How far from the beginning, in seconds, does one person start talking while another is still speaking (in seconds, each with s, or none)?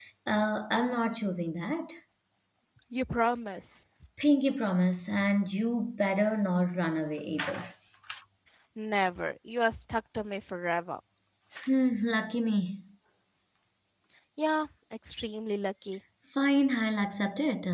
none